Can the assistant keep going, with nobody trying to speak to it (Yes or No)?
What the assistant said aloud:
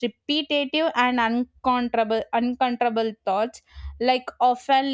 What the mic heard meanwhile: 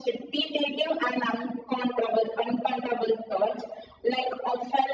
Yes